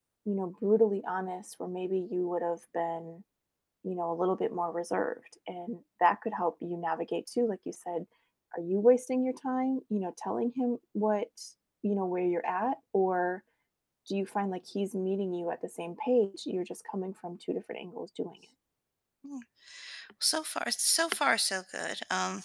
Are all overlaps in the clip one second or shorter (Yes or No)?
Yes